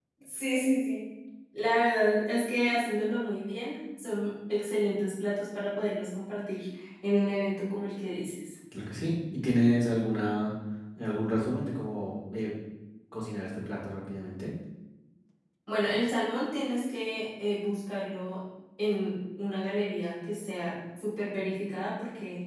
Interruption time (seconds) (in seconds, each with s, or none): none